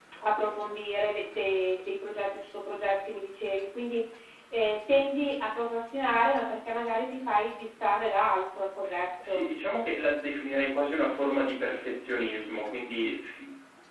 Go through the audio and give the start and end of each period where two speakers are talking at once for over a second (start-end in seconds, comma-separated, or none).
none